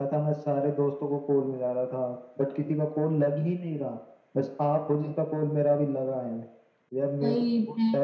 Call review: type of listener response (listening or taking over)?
listening